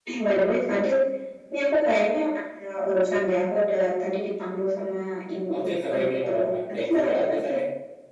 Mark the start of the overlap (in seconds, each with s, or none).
5.5 s